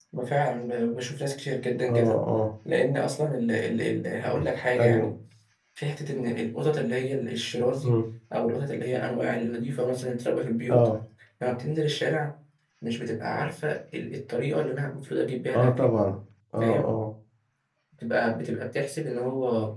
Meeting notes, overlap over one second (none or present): none